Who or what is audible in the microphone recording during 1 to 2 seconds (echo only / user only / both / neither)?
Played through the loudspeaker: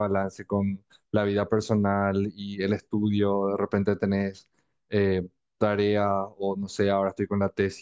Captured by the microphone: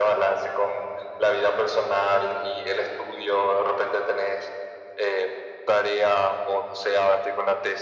echo only